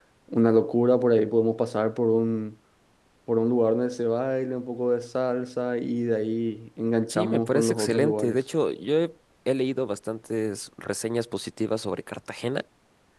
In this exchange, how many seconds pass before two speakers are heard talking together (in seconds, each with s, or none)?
7.1 s